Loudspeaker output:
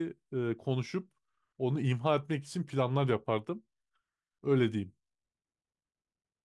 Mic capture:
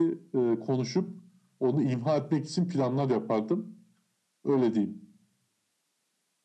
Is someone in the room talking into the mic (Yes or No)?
No